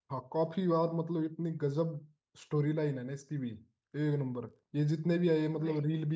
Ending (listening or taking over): listening